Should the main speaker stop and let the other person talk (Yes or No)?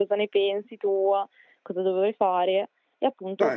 No